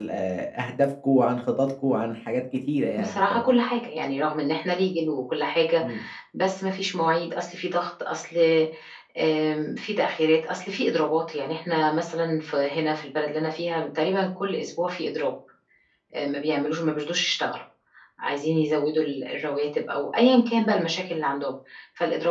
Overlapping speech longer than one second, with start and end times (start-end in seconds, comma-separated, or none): none